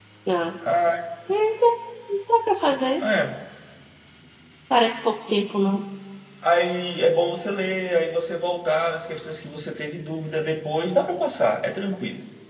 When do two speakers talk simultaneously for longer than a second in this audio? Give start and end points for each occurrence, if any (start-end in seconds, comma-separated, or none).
none